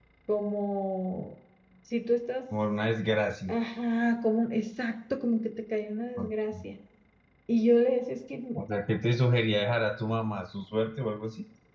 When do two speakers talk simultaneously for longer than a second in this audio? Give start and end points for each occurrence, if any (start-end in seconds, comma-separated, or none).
none